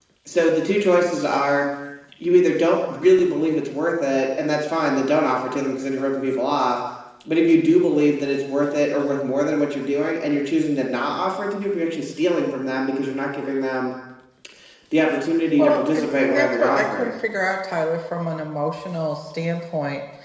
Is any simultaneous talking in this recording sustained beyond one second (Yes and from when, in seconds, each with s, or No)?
Yes, from 15.6 s